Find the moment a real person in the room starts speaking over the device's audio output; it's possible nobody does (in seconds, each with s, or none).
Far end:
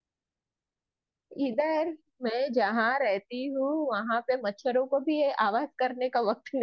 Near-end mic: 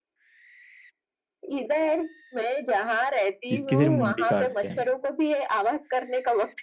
3.5 s